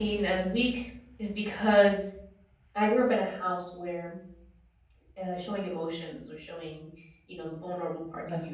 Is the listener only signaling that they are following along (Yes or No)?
Yes